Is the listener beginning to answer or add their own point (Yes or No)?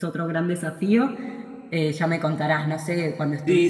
Yes